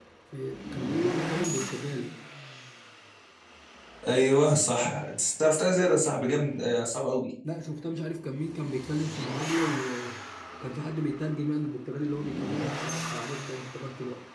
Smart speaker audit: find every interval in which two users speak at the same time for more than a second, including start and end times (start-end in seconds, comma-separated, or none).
none